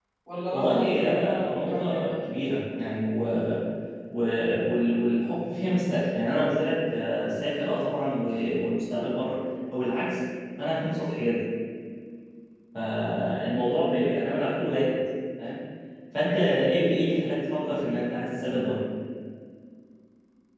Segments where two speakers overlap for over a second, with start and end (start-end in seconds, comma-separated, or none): 0.5-2.1